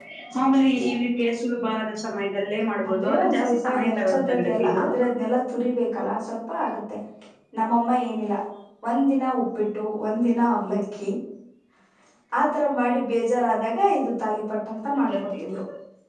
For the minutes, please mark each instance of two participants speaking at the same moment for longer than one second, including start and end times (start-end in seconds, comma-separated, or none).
2.9-4.8